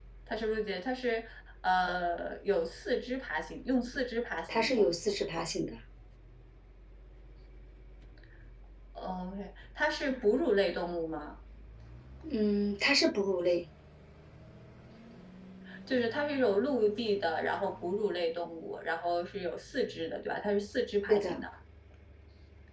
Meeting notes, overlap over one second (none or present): none